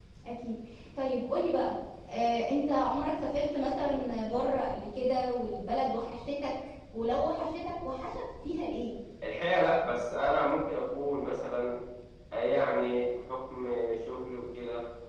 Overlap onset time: none

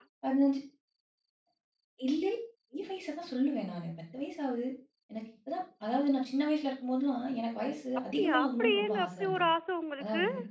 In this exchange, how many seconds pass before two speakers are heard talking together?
8.2 s

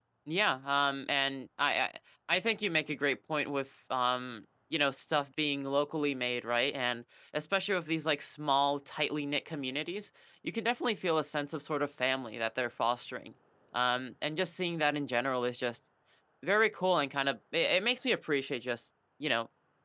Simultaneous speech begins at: none

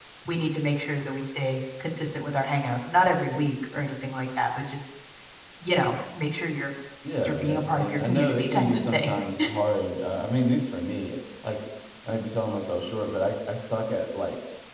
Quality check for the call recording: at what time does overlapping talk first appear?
7.2 s

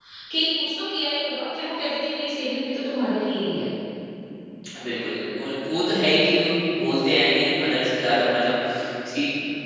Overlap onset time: none

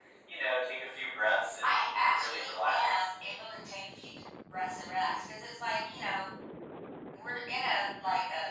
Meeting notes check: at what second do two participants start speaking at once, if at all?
1.6 s

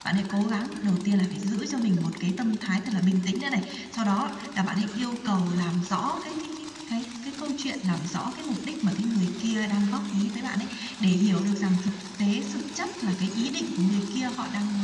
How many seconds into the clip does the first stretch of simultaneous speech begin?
none

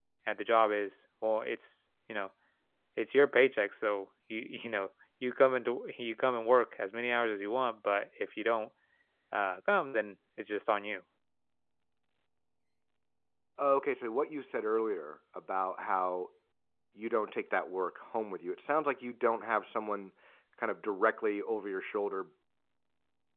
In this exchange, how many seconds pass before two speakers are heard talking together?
none

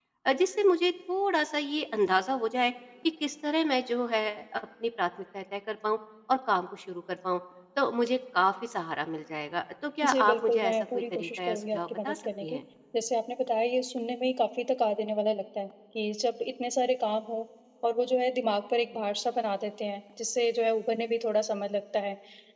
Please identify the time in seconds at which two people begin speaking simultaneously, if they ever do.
10.0 s

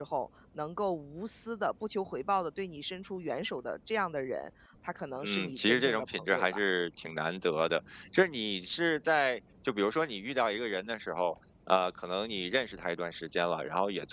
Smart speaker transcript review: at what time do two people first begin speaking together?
5.2 s

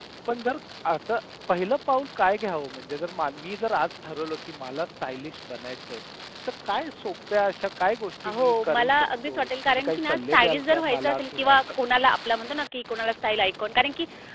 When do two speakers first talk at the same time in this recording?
8.2 s

